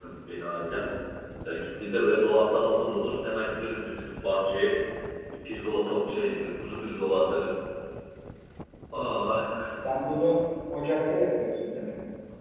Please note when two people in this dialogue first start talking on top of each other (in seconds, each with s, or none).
none